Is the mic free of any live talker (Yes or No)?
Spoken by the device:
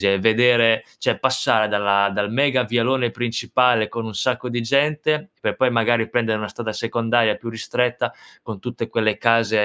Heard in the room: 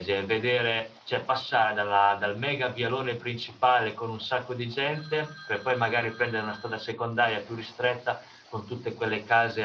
Yes